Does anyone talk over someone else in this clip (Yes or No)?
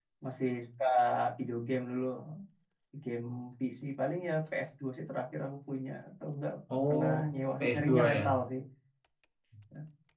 Yes